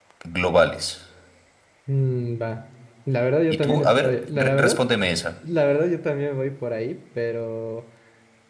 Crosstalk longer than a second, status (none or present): present